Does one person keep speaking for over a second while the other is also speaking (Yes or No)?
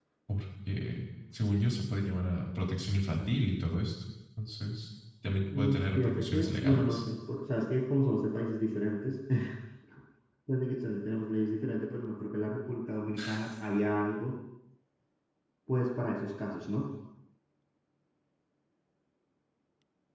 Yes